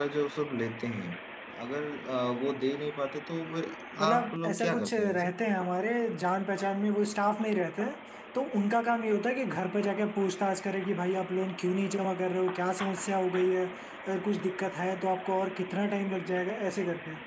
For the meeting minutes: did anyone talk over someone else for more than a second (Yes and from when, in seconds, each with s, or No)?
Yes, from 4.0 s